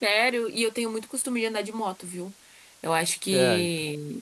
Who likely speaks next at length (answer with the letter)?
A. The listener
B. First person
B